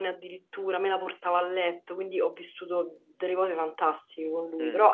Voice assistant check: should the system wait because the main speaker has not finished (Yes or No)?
Yes